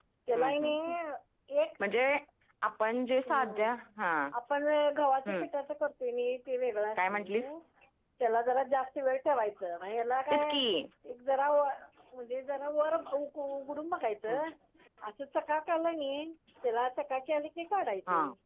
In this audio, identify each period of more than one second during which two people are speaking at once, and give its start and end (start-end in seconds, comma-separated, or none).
none